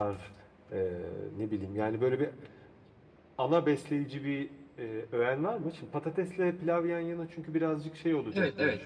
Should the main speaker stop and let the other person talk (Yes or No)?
Yes